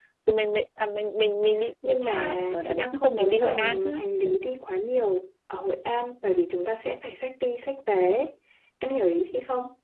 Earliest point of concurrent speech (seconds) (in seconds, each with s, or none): 1.8 s